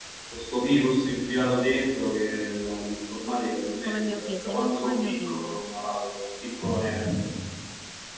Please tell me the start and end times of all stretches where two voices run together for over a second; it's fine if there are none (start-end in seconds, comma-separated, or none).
3.9-5.6